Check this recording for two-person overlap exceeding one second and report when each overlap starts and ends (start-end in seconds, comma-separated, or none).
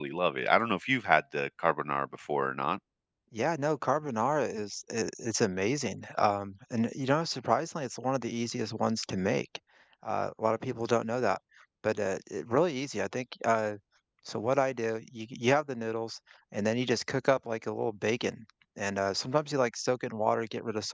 none